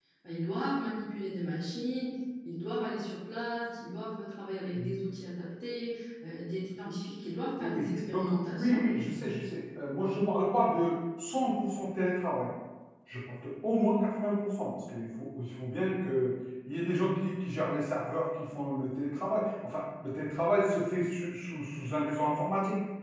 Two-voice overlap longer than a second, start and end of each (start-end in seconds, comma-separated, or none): 7.6-8.8